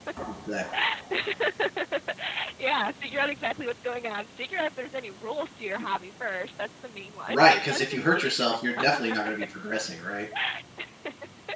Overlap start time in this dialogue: 7 s

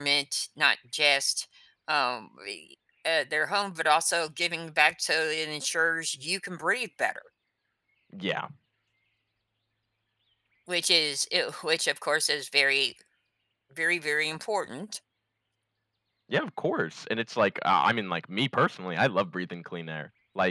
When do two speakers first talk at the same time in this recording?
none

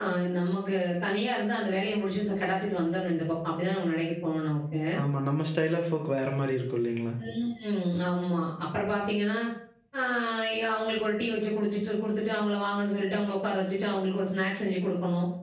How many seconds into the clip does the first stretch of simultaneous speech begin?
none

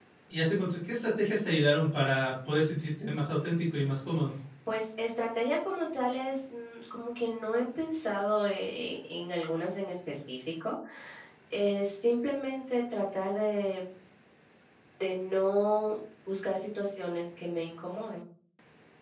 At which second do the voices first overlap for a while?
none

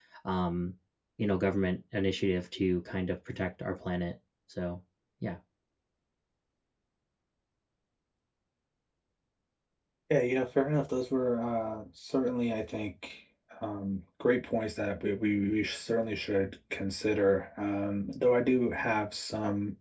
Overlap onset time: none

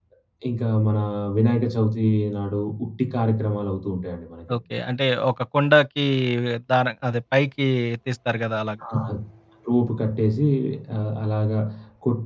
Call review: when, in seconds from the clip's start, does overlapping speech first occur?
none

